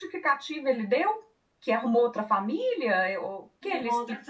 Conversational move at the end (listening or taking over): taking over